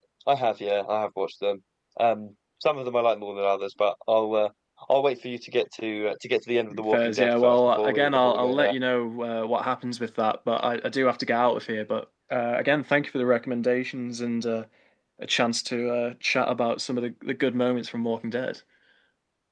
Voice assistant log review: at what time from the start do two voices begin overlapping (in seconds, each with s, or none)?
6.7 s